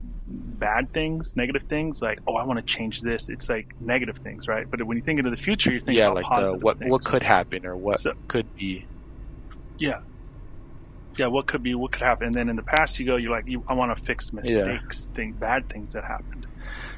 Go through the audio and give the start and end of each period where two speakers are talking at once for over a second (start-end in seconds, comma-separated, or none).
5.9-7.1